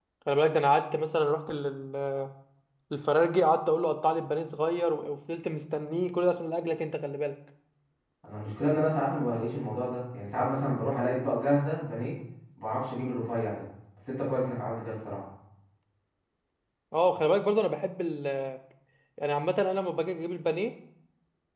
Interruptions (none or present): none